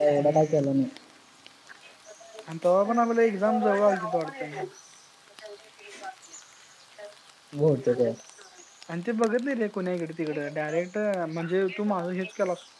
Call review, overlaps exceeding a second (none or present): present